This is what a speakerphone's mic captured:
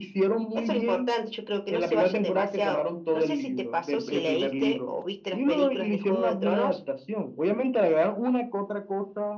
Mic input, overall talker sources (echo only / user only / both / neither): echo only